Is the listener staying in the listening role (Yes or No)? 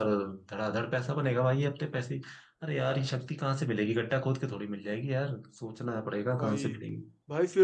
No